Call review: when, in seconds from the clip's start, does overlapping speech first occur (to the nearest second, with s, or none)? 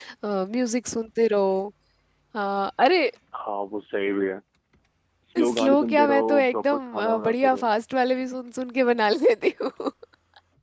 5 s